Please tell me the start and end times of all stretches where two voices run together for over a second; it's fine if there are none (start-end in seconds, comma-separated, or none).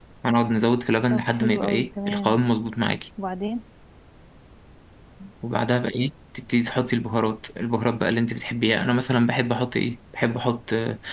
1.1-2.4